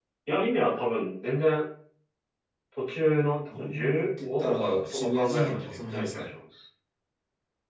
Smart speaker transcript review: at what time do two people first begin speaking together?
4 s

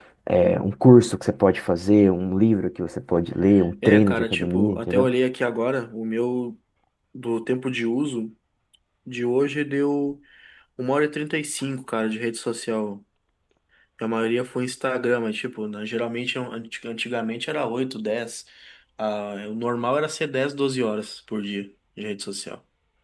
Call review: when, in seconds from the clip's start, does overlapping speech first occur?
4 s

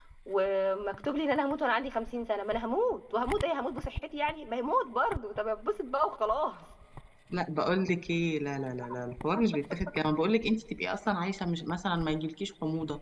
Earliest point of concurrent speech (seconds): none

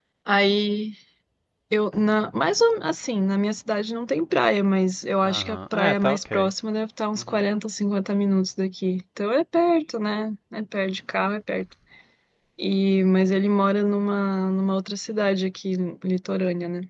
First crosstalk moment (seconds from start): 5 s

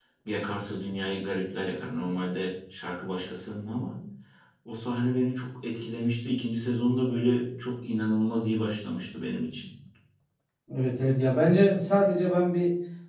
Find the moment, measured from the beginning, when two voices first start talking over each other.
none

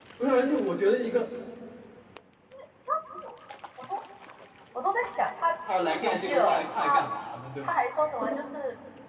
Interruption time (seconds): 6 s

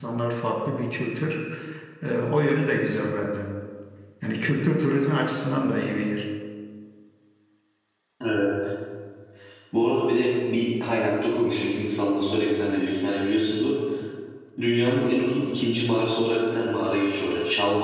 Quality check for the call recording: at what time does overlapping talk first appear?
none

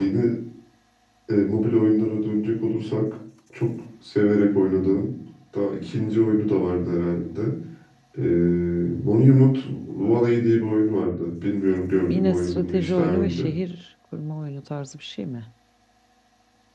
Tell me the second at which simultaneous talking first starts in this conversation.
12 s

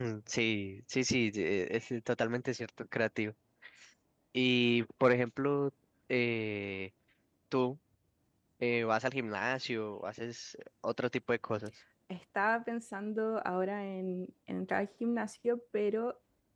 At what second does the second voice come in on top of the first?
none

